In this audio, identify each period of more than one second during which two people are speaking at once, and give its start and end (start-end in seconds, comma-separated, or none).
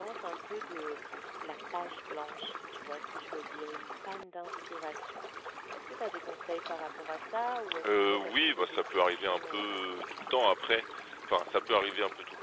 7.9-10.2